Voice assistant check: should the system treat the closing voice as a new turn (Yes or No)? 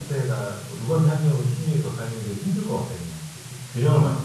No